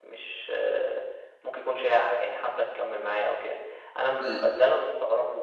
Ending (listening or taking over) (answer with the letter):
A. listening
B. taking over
A